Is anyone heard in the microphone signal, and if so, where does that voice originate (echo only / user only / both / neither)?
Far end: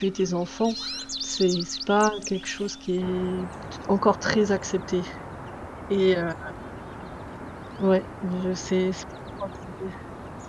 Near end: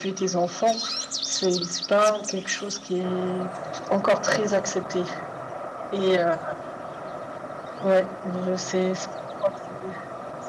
echo only